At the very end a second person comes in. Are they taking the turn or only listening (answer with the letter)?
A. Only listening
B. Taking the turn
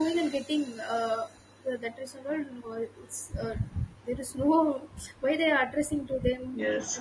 A